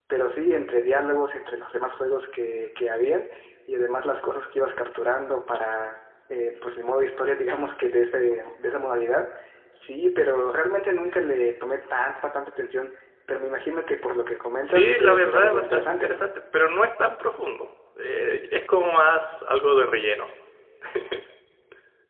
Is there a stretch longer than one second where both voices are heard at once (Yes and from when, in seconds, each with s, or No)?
Yes, from 14.6 s